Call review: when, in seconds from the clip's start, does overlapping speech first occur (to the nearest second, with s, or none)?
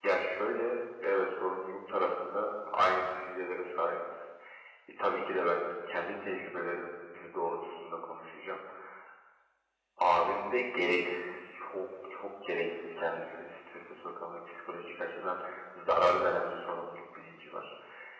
none